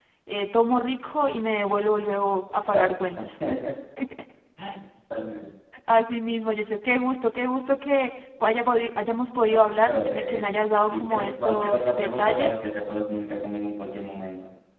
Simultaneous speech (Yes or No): Yes